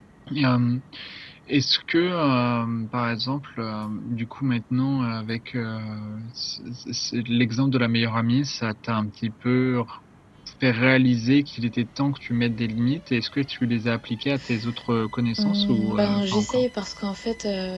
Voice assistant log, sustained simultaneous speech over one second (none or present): present